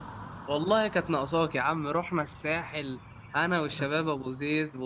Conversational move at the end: listening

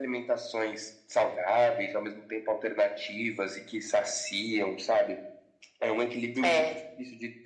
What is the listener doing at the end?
listening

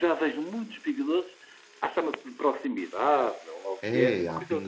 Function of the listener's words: taking over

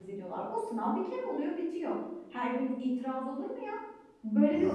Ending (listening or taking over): listening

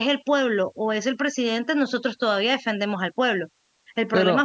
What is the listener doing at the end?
listening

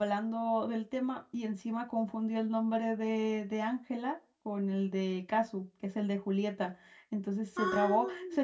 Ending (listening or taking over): listening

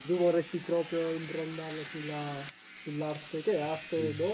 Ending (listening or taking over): listening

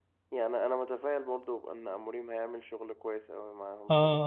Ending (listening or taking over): taking over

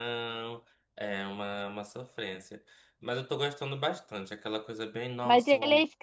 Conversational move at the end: taking over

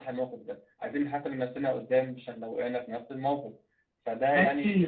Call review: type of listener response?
listening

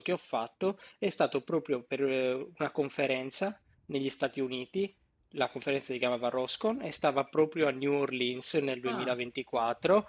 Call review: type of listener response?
listening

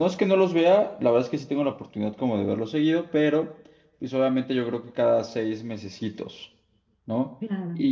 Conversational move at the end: listening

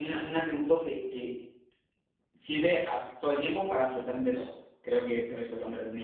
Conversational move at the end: listening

